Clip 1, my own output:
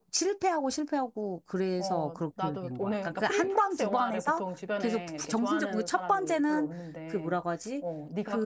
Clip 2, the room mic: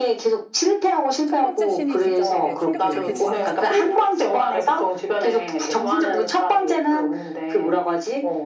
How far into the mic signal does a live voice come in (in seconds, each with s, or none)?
1.2 s